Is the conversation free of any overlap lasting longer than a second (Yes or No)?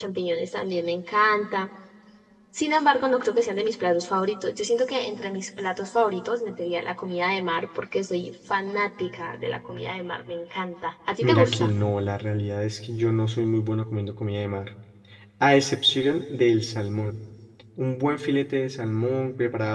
Yes